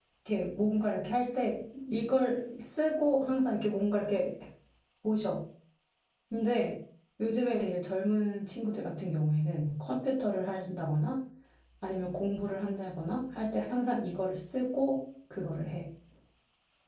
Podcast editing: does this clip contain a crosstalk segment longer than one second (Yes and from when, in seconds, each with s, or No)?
No